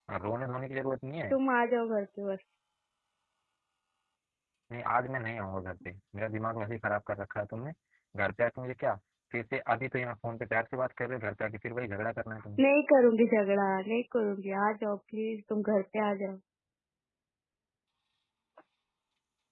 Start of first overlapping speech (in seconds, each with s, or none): none